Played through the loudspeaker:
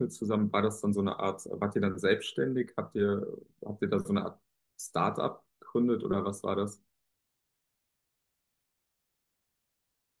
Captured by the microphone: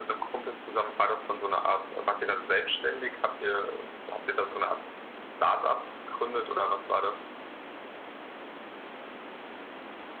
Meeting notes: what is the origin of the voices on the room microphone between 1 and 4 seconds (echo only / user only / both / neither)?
echo only